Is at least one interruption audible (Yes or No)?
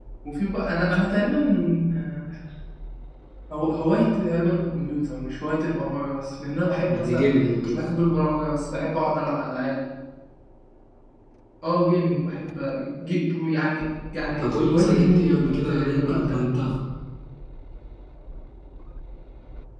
Yes